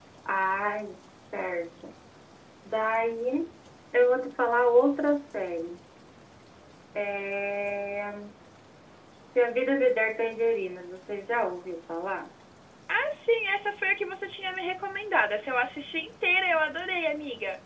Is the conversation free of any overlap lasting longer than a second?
Yes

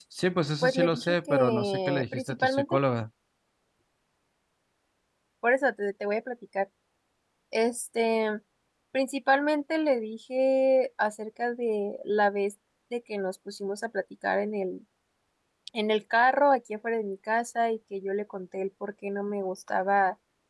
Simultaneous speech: Yes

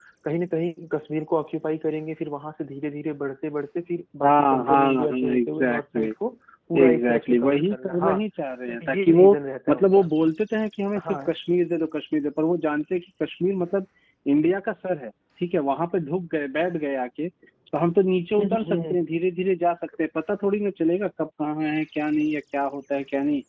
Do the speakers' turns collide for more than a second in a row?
Yes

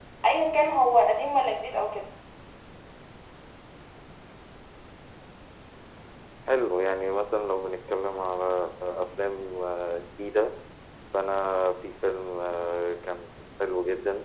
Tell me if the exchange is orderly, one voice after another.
Yes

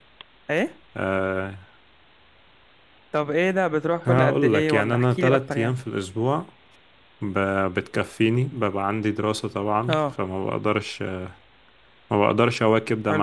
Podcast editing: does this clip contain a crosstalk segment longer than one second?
Yes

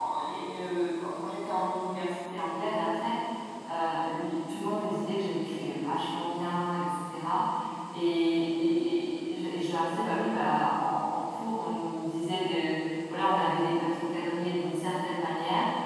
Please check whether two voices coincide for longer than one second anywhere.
No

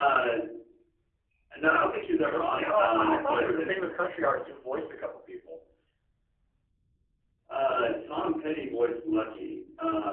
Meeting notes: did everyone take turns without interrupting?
No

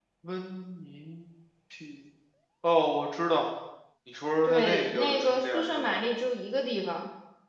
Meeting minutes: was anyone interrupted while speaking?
Yes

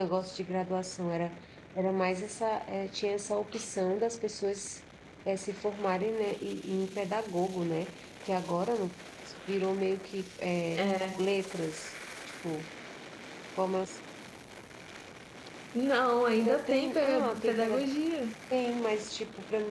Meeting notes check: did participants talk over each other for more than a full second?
Yes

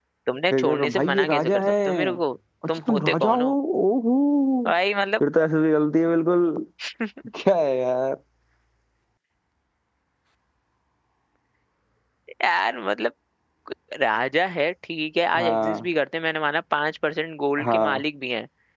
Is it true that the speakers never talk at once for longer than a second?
No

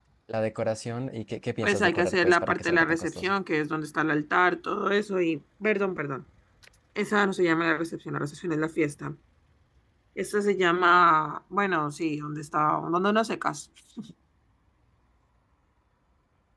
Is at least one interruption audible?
Yes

